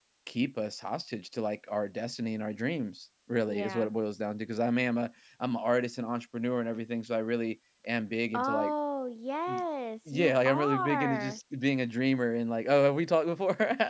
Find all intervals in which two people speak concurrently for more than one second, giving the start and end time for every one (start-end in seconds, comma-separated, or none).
10.1-11.4